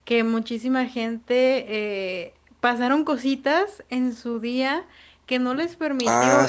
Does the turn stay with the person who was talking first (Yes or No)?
Yes